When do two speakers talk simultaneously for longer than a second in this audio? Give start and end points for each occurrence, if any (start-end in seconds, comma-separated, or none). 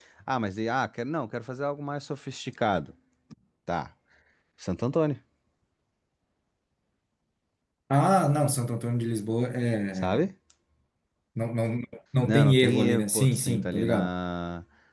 12.3-14.1